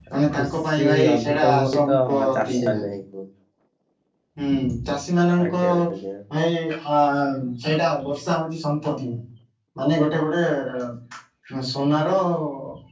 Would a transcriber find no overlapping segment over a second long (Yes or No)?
No